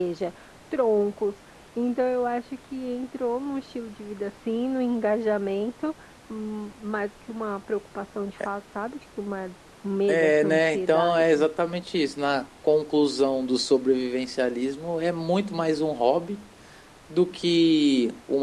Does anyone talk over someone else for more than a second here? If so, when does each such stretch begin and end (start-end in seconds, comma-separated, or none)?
10.1-11.5